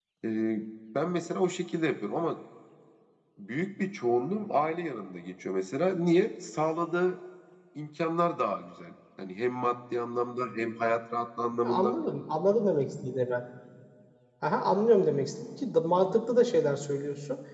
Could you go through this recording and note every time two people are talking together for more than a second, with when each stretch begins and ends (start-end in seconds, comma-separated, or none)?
none